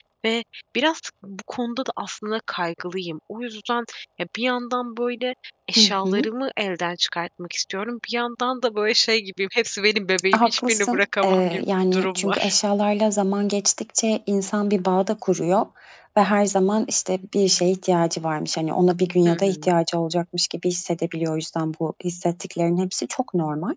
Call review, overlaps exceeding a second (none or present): present